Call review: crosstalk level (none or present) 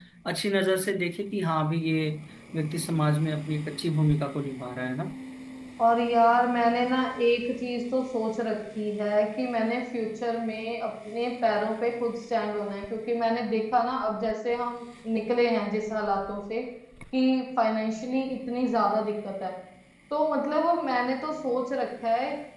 none